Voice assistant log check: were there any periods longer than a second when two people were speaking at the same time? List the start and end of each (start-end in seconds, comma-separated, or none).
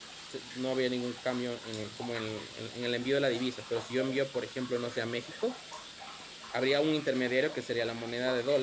none